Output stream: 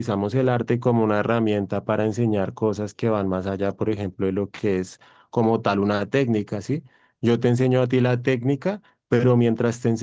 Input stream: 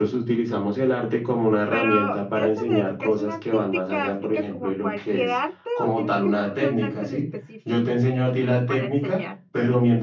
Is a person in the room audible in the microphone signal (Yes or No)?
Yes